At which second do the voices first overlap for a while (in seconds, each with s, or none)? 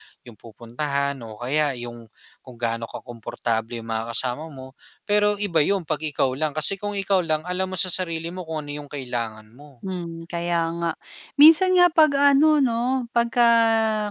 none